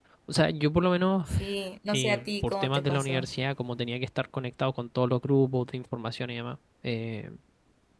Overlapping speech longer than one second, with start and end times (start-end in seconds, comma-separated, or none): 1.9-3.2